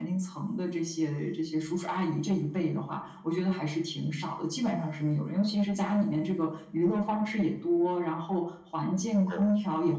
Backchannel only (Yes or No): Yes